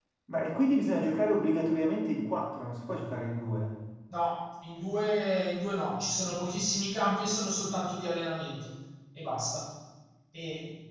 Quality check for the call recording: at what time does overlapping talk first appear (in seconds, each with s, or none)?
none